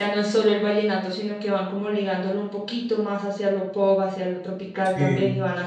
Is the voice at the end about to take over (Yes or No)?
No